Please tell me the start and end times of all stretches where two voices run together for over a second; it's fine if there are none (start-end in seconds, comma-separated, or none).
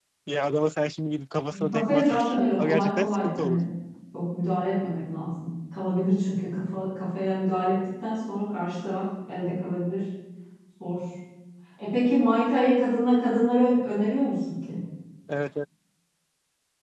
1.5-3.6